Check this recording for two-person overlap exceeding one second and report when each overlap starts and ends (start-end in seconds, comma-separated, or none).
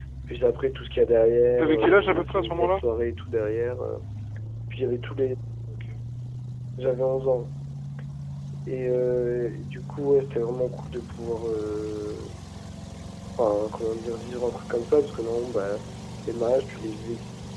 1.5-2.8